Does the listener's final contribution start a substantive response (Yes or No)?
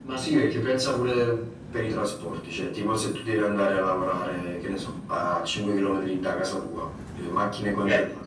No